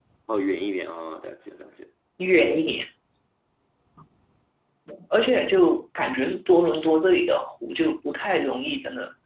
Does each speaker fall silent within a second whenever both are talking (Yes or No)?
Yes